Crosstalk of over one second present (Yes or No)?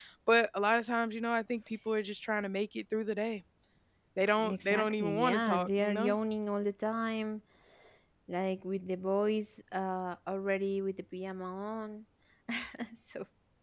Yes